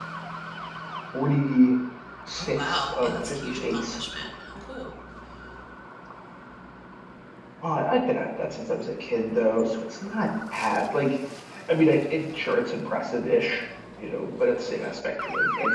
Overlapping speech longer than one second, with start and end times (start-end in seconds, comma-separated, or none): 2.4-4.0